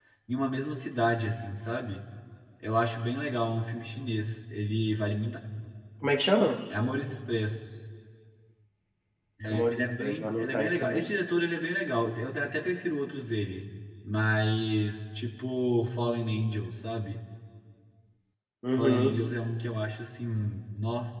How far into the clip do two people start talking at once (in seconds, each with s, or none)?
9.4 s